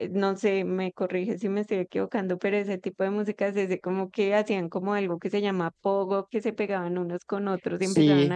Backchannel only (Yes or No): Yes